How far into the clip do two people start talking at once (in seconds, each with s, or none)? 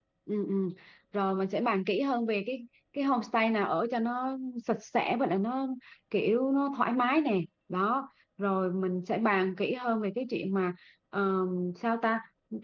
none